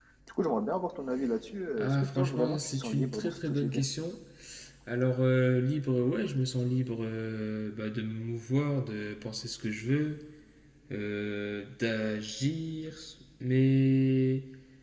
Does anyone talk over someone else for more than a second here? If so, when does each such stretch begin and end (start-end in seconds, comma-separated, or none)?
1.8-3.8